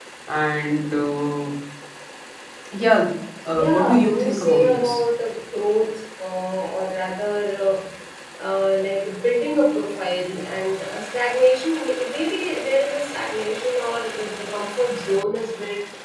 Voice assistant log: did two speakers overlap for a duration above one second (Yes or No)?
Yes